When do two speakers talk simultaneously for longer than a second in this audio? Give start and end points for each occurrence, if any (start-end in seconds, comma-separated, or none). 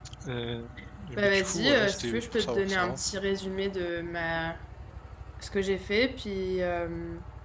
1.2-3.0